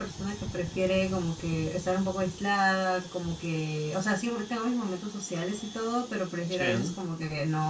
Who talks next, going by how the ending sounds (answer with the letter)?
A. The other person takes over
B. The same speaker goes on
B